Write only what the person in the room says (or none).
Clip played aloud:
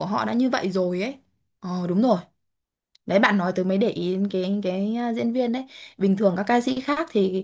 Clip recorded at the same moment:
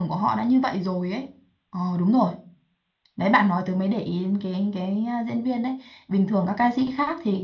none